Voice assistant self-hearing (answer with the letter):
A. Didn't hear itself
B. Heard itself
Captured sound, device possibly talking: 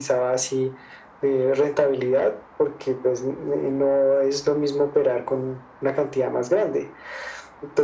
B